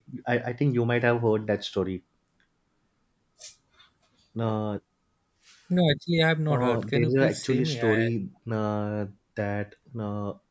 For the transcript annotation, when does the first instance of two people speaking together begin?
6.5 s

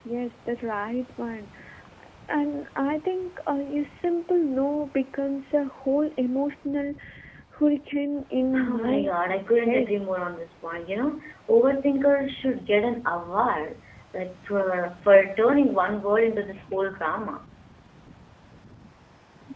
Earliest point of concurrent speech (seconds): 8.5 s

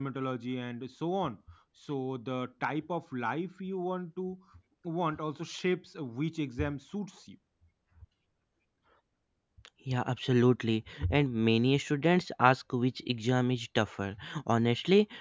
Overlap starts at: none

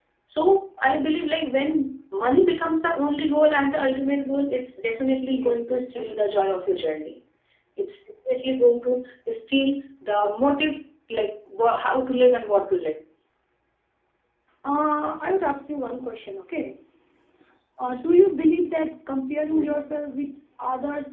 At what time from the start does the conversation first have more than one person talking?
5.3 s

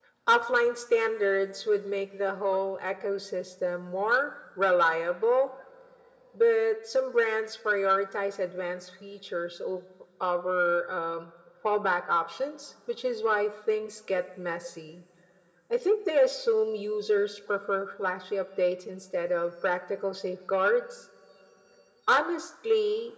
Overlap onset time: none

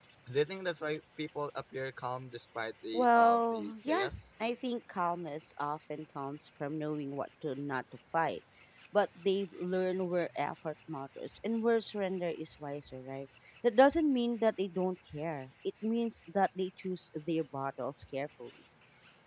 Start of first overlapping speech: 2.9 s

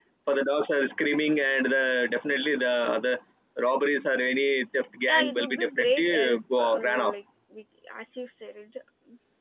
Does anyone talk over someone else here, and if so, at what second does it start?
5.1 s

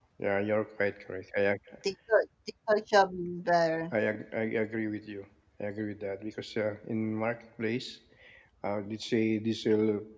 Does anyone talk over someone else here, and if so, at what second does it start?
none

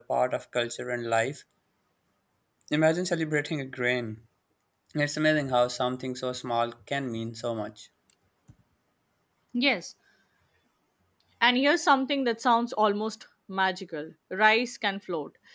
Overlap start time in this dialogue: none

